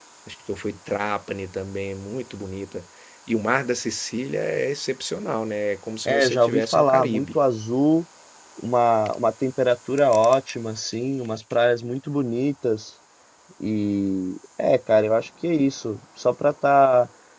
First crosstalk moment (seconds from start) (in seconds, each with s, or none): 6.0 s